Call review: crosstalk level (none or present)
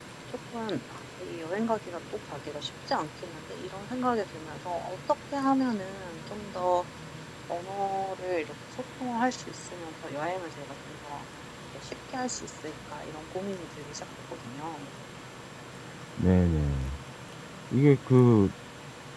none